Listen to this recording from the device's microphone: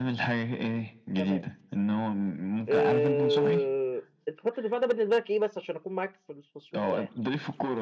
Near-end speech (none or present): present